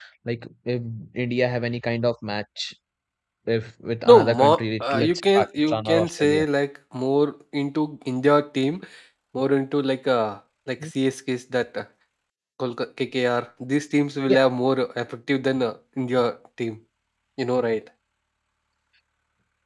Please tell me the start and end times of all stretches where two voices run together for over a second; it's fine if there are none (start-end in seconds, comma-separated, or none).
4.0-6.4